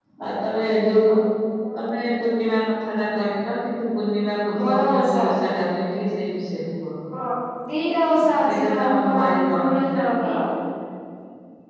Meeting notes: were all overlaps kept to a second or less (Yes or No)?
No